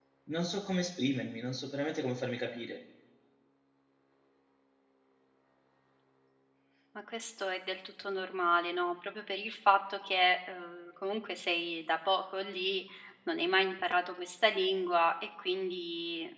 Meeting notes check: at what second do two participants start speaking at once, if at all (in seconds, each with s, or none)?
none